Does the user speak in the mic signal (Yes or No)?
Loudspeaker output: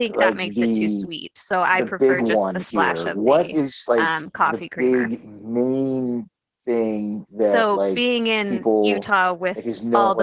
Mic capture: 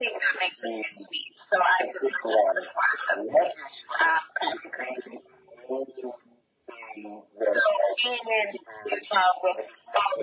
No